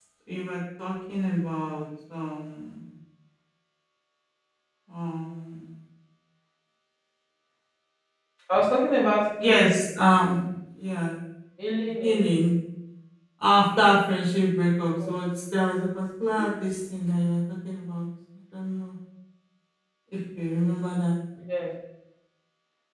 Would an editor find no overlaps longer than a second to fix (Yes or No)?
Yes